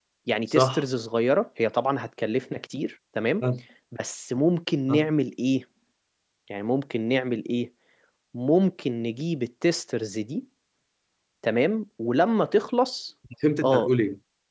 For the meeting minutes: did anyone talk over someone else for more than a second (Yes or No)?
No